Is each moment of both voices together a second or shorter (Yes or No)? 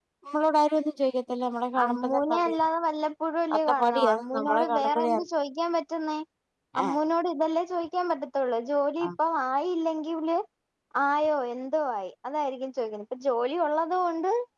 No